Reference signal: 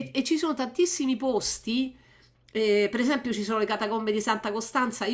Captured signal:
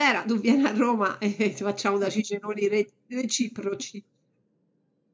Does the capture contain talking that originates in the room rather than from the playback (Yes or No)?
Yes